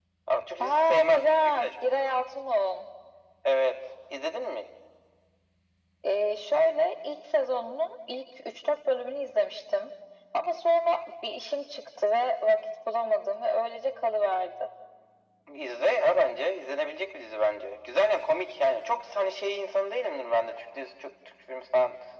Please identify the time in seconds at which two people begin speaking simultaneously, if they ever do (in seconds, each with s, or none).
0.6 s